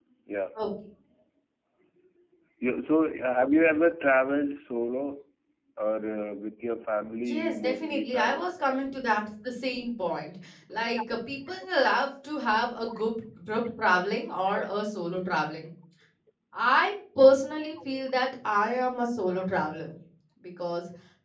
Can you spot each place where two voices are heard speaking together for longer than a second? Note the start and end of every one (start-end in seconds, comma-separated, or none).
7.3-8.5